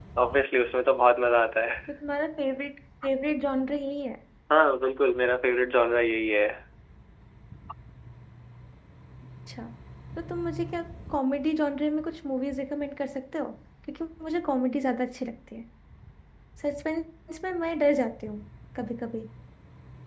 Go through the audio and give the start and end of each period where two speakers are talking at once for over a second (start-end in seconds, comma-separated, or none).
none